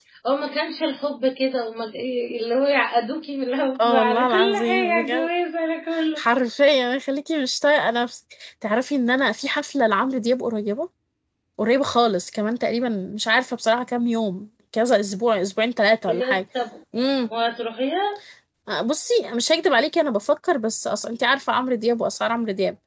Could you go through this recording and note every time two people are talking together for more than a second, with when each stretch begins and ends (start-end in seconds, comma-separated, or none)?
3.8-5.3